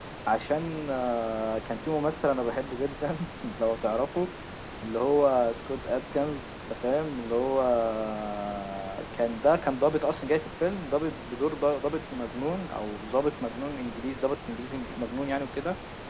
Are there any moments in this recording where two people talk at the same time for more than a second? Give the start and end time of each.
none

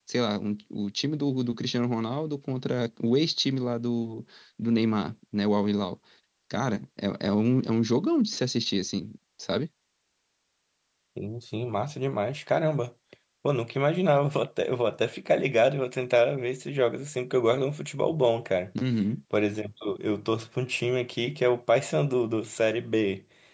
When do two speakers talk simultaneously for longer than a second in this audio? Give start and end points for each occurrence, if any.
none

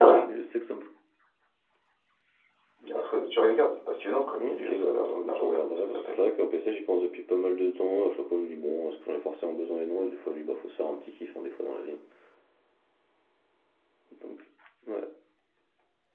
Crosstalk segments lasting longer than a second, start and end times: 4.4-6.2

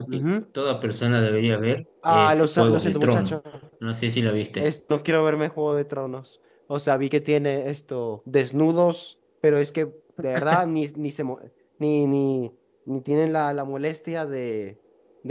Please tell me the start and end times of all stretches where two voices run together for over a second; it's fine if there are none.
2.1-3.4

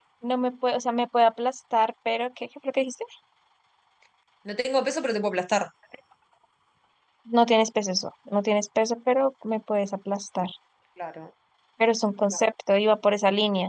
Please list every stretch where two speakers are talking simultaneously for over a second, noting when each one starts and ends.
none

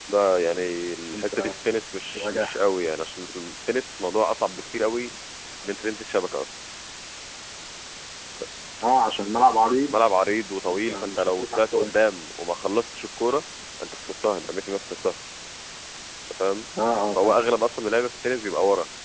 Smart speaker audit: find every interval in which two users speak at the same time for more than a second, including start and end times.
10.7-11.9

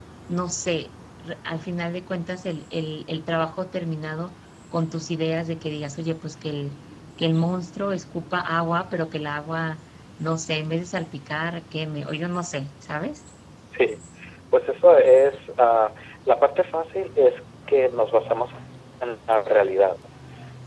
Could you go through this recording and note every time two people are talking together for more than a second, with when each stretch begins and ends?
none

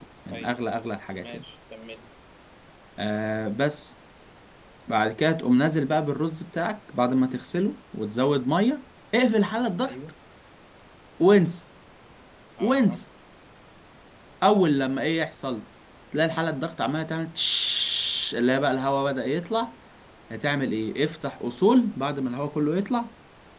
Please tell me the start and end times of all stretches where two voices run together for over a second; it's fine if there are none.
none

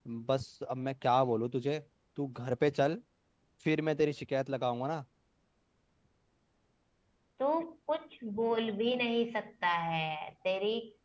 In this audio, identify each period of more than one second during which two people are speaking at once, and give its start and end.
none

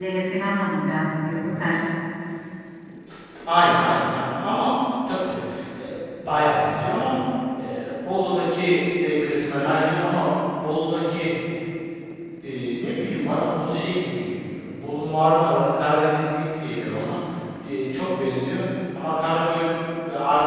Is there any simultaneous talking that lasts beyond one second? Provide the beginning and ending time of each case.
none

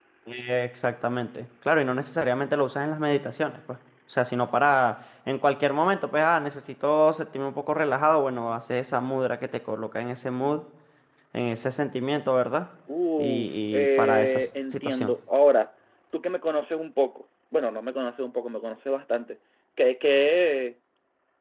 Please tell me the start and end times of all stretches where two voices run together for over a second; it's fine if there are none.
13.2-15.1

